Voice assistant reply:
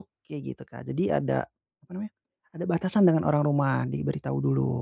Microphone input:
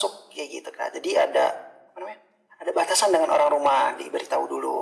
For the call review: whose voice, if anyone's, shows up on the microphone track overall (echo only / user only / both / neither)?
echo only